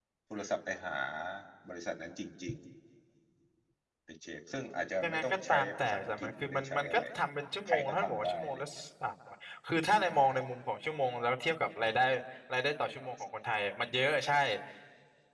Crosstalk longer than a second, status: present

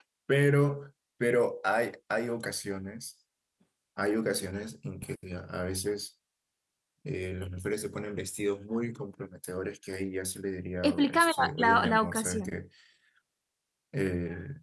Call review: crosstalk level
present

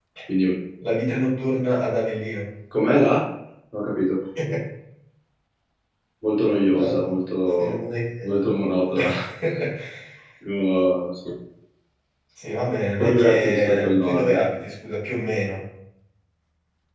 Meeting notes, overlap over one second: present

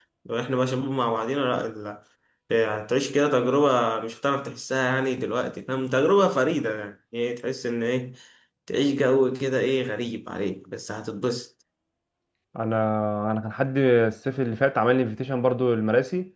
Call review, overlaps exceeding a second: none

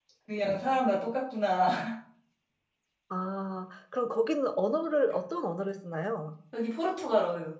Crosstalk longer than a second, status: none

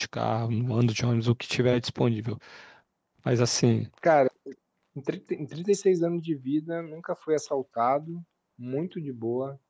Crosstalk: none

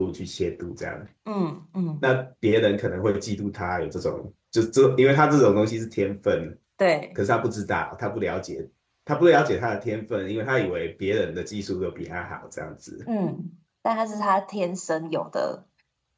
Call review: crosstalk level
none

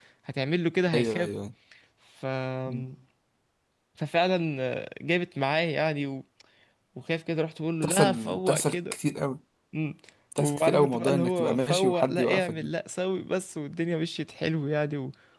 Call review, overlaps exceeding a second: present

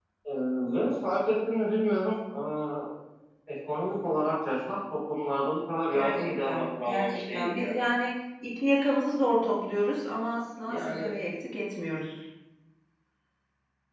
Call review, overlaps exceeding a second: present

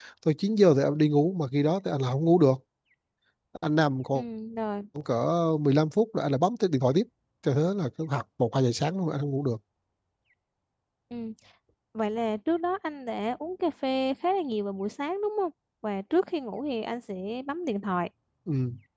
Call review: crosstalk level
none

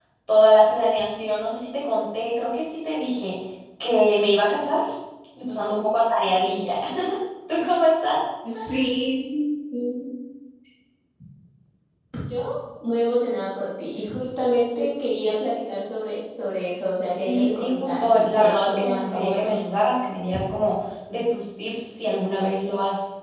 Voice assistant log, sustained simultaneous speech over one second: present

